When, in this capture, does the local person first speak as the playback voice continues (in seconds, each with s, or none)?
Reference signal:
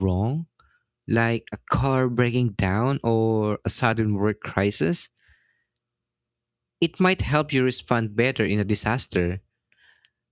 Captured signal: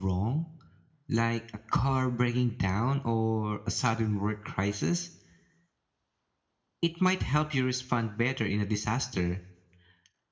none